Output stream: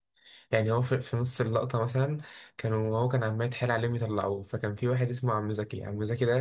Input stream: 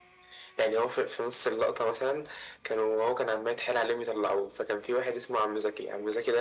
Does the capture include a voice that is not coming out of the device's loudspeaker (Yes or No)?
No